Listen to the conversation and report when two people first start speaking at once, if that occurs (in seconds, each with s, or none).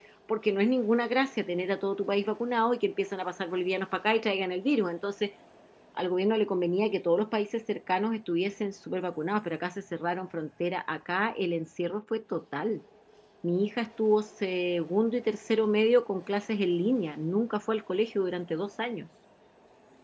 none